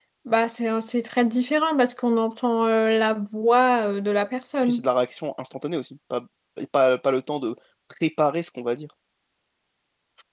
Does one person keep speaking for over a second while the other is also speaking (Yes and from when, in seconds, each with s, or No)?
No